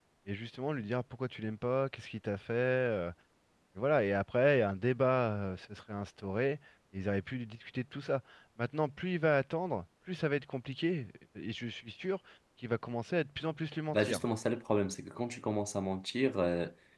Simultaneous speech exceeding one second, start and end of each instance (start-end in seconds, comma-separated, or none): none